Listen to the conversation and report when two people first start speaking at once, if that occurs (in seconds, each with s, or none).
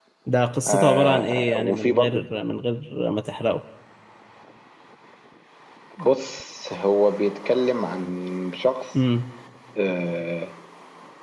0.7 s